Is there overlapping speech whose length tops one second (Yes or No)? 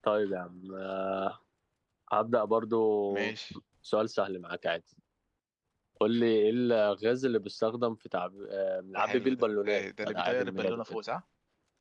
Yes